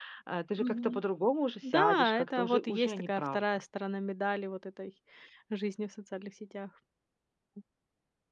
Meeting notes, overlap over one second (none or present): present